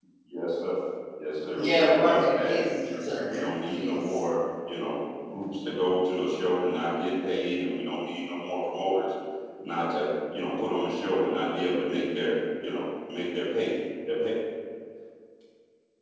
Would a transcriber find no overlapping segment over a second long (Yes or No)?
No